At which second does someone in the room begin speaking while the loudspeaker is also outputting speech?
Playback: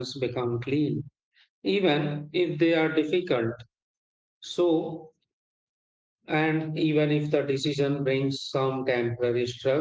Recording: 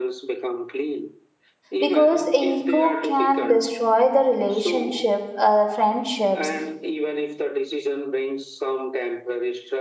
1.8 s

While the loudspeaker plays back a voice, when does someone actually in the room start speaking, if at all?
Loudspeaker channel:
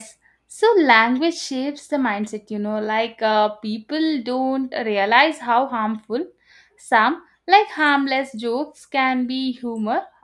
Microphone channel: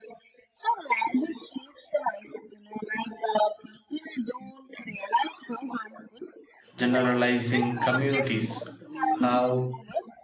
6.8 s

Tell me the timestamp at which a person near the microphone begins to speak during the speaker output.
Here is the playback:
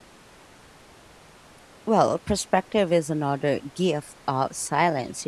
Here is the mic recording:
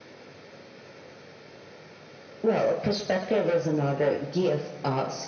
none

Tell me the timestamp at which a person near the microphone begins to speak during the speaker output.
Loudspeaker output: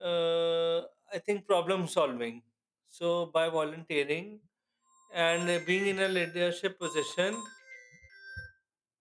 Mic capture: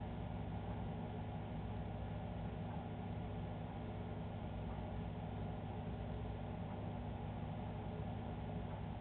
none

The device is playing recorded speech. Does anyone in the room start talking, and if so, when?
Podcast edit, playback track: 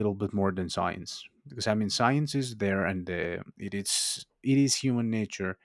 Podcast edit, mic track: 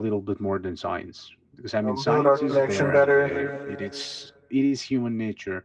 1.8 s

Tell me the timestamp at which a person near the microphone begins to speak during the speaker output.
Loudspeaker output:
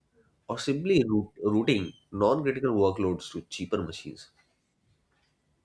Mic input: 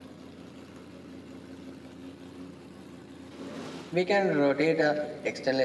3.9 s

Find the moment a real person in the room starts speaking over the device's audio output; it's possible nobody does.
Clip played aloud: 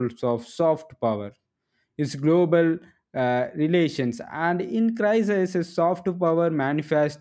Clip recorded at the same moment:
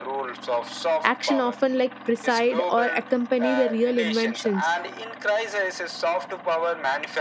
1.0 s

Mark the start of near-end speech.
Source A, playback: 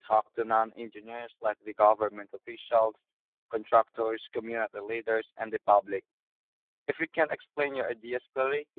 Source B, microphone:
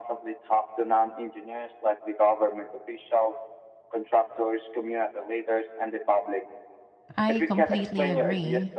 7.2 s

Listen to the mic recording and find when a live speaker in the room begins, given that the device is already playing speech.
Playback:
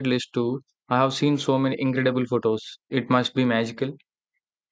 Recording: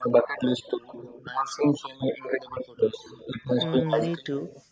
3.6 s

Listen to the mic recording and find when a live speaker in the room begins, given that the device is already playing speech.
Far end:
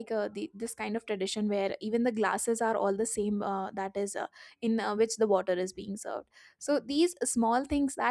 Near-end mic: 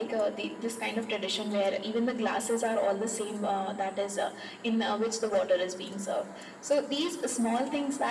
none

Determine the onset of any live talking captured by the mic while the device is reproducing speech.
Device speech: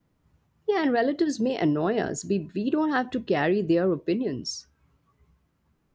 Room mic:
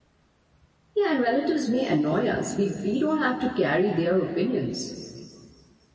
none

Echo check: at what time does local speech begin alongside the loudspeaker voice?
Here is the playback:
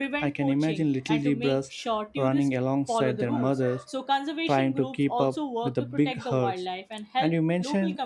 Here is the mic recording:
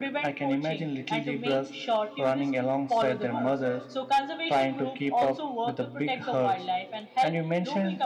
none

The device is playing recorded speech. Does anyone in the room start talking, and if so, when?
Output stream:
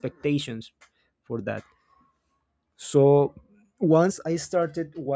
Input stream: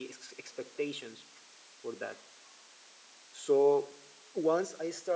none

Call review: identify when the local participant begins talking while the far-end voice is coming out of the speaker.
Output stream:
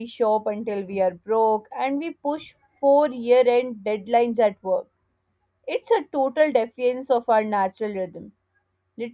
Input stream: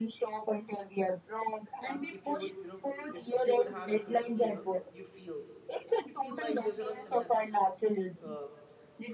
1.9 s

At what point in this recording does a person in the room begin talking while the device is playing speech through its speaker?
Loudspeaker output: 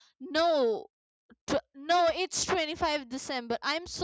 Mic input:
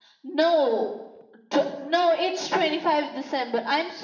none

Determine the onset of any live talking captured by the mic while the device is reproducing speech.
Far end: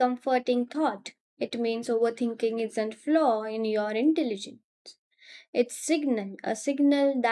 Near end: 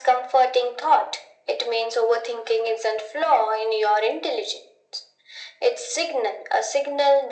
none

